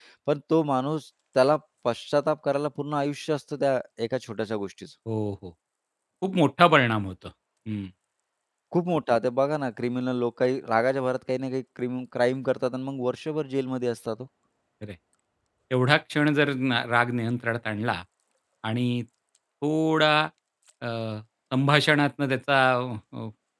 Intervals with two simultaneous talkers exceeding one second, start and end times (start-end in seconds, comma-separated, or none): none